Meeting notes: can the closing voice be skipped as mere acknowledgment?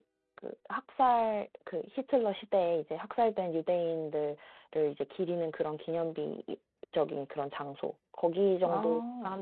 Yes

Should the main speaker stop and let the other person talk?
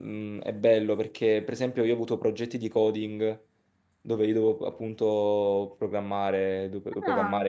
No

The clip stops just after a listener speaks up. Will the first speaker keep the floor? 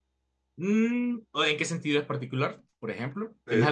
No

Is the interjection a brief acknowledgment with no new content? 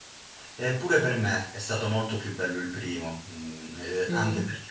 Yes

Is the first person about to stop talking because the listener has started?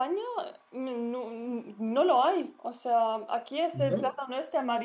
No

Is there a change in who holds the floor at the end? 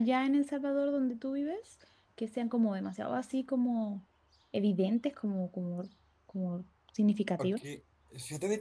Yes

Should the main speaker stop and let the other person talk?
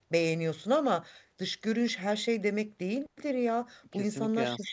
Yes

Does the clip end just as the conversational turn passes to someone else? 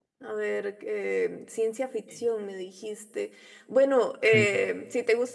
No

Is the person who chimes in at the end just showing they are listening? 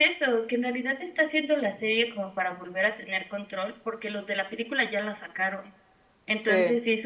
Yes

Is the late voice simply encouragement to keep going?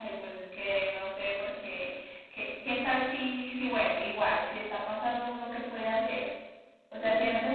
Yes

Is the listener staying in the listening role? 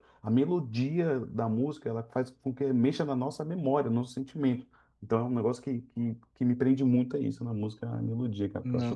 No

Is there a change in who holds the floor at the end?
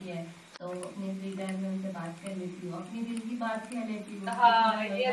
Yes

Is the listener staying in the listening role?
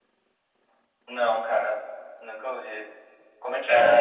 No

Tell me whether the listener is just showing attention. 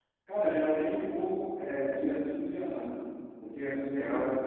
Yes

